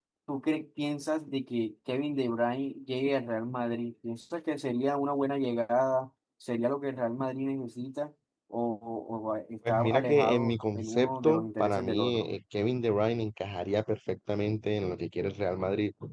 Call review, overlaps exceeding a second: present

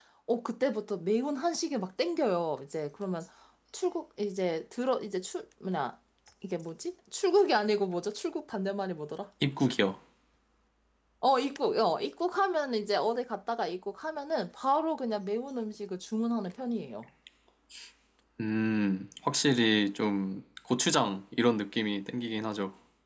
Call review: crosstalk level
none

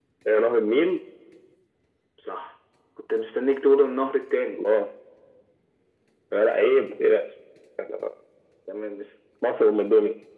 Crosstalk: none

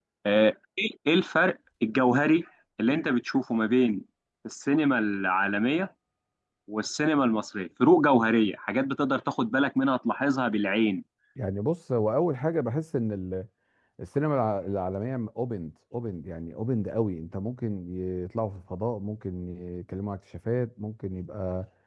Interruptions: none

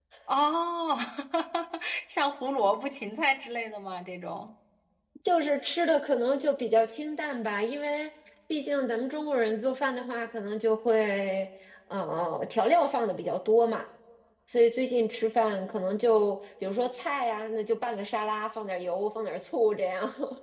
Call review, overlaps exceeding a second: none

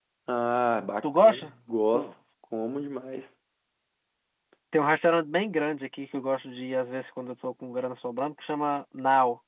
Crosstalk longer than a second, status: none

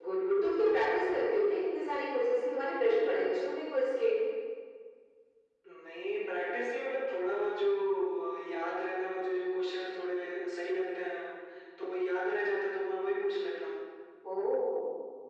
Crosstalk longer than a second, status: none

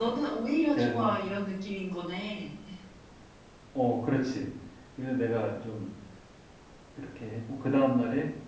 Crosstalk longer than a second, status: none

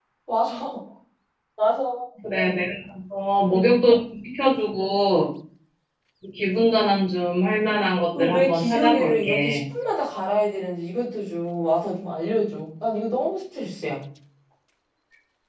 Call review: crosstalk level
present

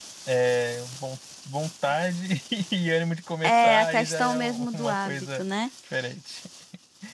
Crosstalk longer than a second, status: present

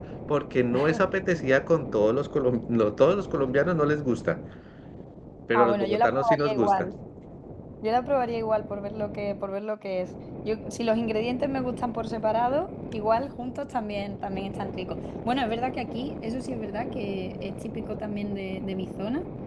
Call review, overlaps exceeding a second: present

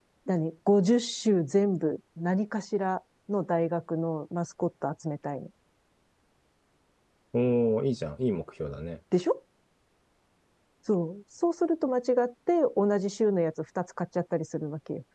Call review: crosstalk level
none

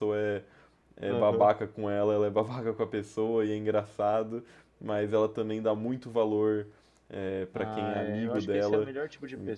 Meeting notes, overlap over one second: present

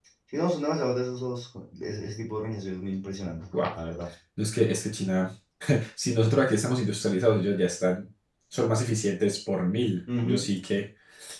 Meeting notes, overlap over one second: none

